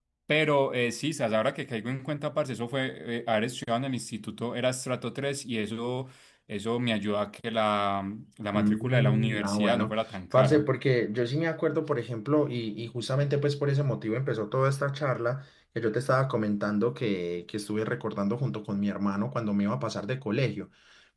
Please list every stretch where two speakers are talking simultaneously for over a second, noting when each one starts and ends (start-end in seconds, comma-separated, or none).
8.5-9.9